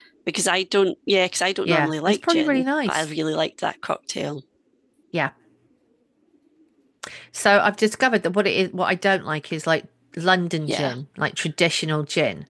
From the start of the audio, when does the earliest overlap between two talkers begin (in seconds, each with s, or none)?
1.6 s